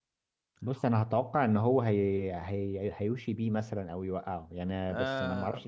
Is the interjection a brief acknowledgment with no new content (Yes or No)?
No